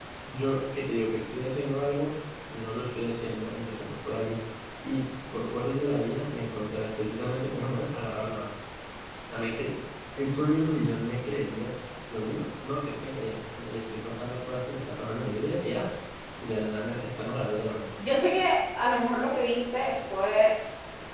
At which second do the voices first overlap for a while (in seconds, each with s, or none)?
none